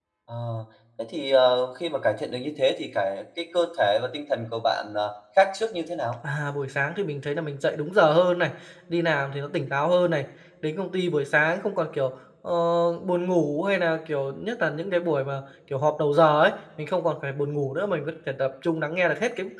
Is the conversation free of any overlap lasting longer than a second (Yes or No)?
Yes